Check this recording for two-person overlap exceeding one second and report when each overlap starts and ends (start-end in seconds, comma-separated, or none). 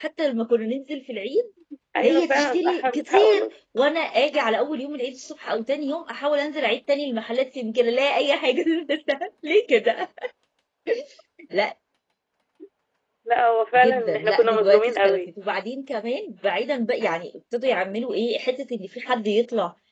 2.0-3.4, 13.8-15.2